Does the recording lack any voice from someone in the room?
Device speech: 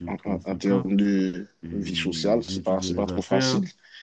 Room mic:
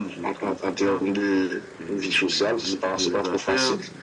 Yes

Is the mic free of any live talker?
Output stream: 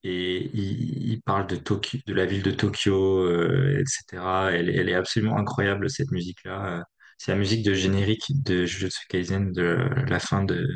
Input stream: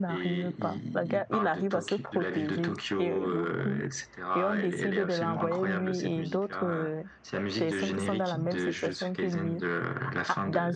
No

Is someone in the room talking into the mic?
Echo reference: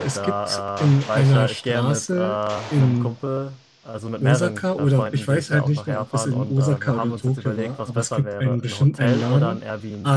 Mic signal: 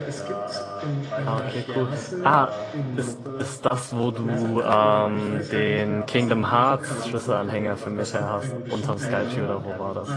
Yes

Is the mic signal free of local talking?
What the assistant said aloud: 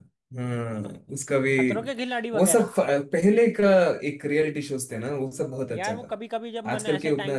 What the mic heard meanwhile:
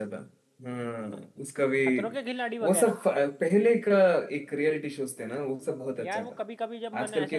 Yes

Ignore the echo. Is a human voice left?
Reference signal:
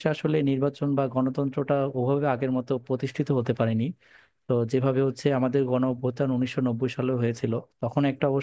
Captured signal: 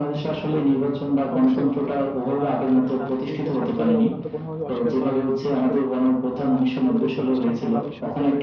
Yes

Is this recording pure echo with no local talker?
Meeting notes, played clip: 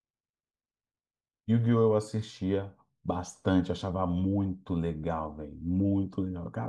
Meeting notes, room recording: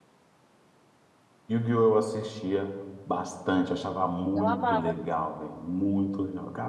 No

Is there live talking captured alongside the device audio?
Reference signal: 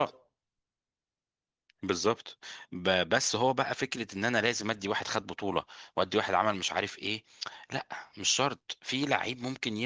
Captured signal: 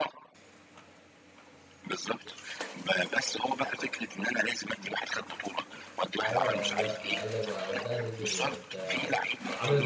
Yes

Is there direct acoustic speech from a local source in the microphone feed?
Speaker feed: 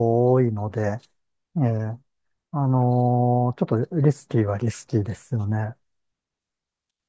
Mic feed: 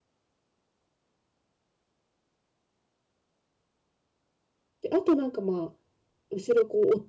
Yes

